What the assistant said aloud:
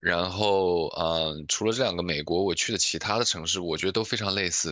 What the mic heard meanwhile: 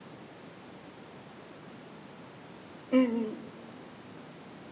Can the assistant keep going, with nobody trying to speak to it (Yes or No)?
No